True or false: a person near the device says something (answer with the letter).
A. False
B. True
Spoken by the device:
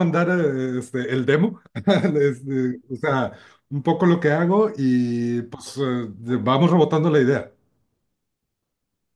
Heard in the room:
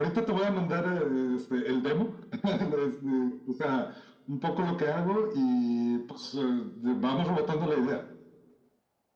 A